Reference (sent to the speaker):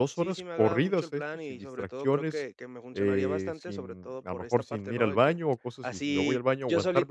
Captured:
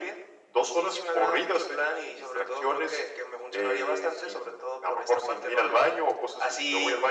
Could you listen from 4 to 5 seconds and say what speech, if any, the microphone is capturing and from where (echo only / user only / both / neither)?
echo only